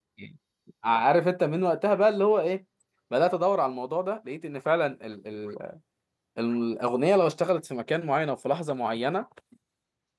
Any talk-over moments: No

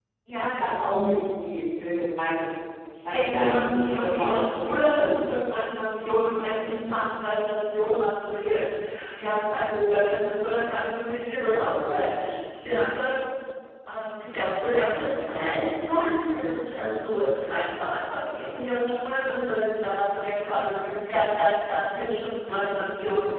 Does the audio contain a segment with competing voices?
Yes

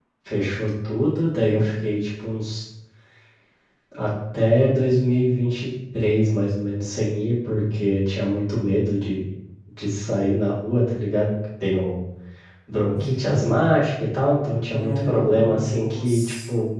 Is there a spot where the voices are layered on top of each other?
Yes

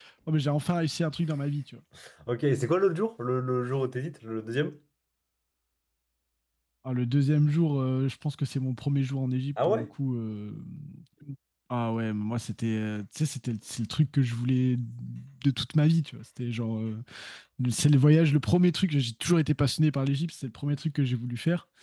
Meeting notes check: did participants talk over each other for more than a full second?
No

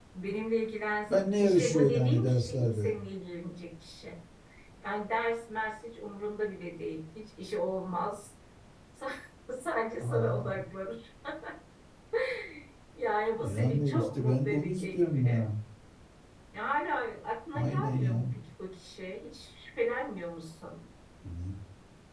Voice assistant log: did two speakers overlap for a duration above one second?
Yes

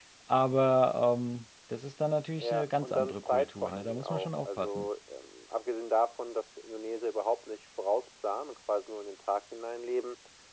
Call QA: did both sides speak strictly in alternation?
No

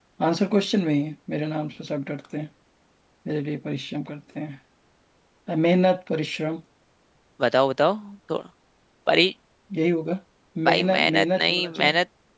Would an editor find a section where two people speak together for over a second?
Yes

